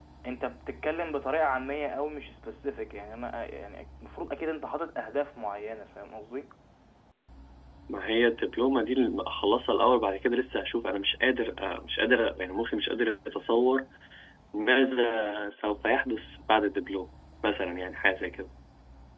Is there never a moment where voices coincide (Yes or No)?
Yes